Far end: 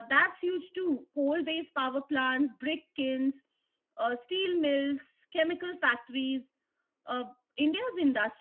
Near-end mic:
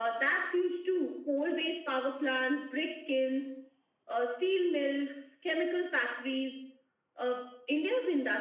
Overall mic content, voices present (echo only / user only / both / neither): echo only